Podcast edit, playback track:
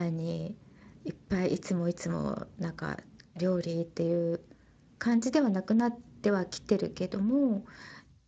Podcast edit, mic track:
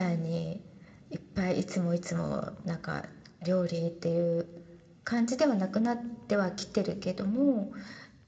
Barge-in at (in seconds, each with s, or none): none